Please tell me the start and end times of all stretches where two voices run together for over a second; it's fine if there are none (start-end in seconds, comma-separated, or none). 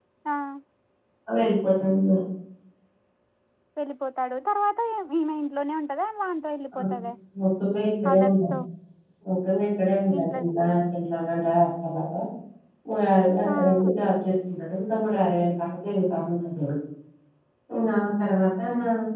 none